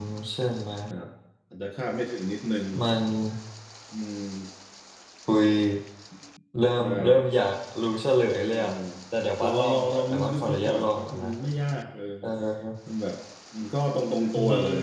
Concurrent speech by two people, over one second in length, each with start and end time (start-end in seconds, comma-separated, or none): 9.4-11.3